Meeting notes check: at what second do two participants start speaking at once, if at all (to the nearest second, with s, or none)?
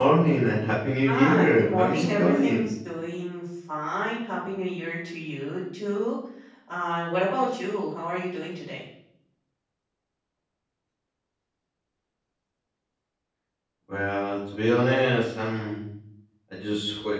1 s